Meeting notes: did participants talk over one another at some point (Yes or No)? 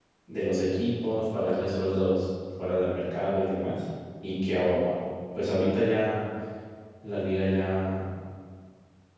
No